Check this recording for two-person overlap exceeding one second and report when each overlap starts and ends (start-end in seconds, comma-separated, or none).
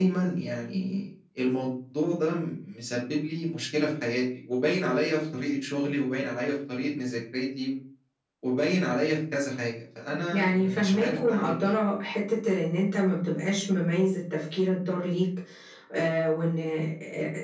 10.3-11.8